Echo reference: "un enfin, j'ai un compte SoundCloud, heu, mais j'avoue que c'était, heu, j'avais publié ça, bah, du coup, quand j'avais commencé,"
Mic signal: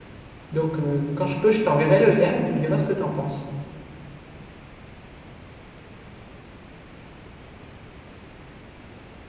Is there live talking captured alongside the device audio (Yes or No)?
Yes